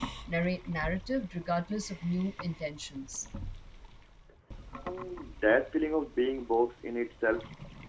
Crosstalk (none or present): none